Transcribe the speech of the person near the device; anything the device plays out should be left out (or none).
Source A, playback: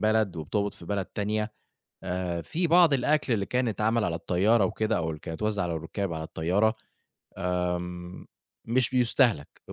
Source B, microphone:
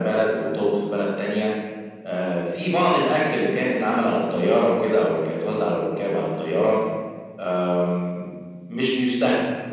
none